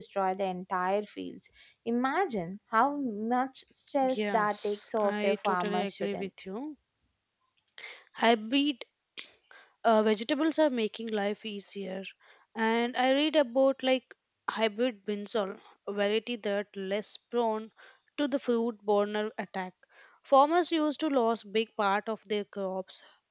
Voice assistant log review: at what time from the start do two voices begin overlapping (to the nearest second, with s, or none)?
4 s